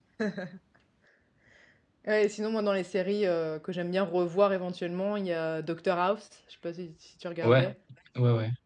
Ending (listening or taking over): taking over